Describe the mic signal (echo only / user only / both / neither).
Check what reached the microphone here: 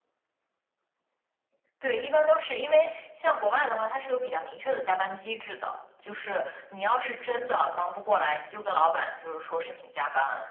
echo only